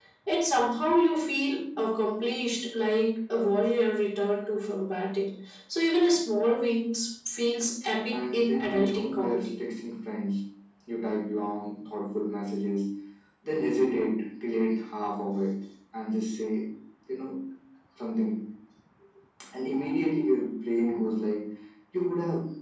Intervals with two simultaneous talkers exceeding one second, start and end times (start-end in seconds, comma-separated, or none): 8.1-9.5